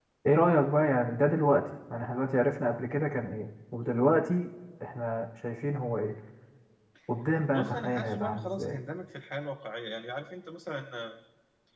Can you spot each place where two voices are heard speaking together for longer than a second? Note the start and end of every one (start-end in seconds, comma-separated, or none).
7.5-8.8